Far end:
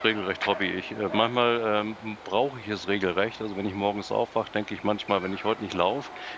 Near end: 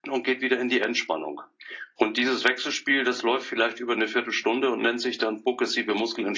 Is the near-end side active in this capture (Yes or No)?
Yes